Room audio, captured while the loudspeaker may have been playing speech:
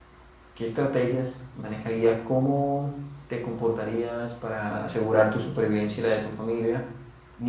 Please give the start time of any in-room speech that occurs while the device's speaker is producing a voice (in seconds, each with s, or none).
0.5 s